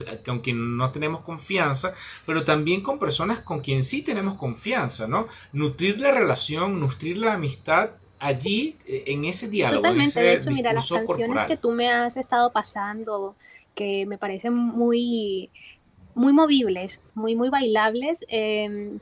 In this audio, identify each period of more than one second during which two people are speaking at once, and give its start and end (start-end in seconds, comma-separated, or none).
9.7-11.6